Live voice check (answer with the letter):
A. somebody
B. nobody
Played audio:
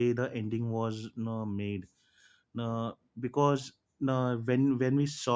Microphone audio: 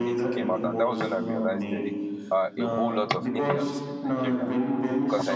A